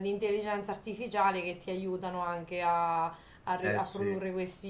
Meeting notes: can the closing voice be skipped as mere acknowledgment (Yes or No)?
Yes